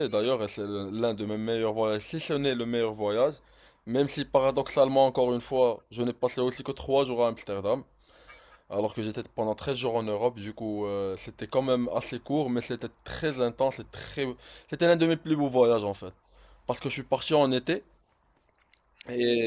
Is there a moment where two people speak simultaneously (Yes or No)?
No